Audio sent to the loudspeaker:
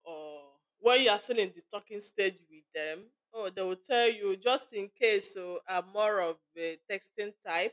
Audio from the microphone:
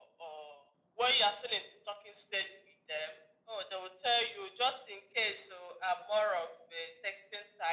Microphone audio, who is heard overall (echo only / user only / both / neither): echo only